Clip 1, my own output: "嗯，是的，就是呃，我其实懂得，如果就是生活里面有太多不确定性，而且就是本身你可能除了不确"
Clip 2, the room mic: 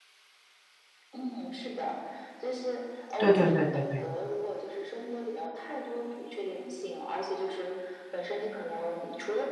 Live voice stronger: Yes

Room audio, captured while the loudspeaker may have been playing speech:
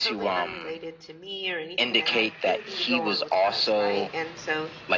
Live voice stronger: No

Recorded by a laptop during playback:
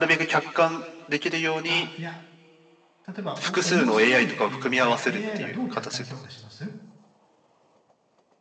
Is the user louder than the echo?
No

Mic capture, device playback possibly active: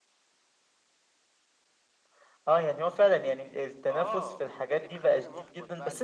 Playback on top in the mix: Yes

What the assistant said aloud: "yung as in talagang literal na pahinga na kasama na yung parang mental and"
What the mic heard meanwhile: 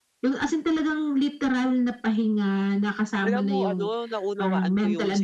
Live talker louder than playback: No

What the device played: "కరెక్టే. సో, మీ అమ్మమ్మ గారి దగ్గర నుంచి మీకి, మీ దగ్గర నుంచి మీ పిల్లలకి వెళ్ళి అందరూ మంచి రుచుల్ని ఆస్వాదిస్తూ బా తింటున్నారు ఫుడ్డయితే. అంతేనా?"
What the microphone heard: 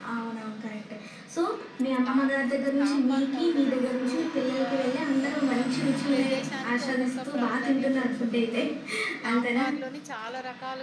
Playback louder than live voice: Yes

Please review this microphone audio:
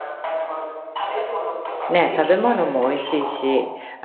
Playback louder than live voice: No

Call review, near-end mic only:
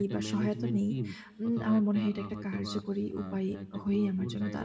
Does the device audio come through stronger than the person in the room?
No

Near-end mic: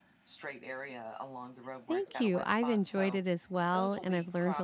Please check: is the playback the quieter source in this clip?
Yes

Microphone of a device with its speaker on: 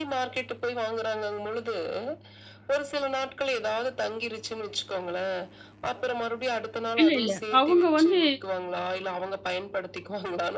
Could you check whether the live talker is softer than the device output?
No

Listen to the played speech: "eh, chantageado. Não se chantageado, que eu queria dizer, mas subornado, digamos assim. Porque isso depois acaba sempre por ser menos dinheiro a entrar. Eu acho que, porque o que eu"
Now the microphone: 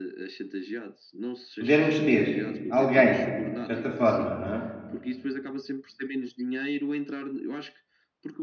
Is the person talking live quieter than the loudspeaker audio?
No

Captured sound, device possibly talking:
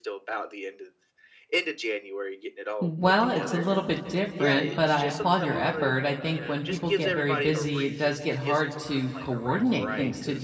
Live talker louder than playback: Yes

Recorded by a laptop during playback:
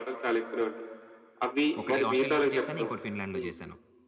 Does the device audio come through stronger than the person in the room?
Yes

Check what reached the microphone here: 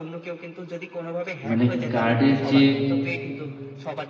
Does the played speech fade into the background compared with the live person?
Yes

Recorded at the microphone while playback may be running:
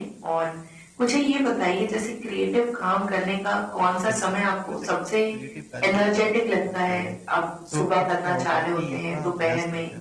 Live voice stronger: No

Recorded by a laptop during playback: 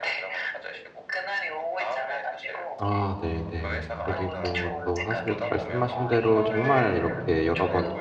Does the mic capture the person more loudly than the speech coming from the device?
Yes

